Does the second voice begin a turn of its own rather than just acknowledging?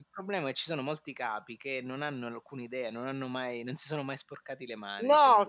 Yes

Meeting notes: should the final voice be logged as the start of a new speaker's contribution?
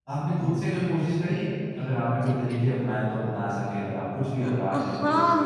Yes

